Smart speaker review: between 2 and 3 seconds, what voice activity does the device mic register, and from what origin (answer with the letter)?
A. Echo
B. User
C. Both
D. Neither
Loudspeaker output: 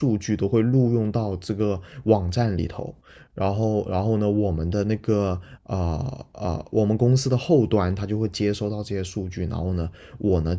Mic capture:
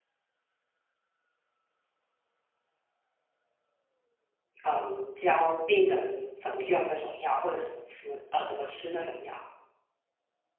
D